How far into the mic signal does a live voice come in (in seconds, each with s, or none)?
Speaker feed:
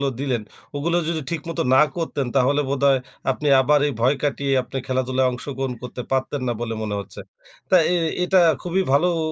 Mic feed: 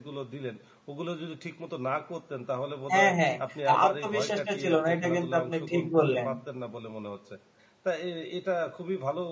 2.9 s